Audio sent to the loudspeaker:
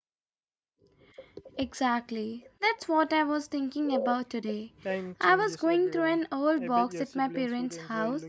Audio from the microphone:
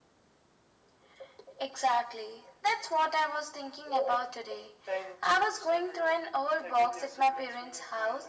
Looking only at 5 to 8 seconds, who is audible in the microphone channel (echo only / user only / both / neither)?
echo only